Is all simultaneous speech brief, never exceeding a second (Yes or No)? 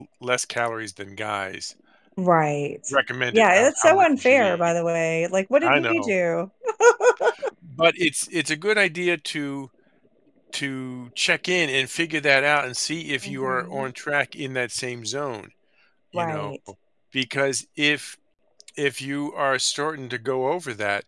No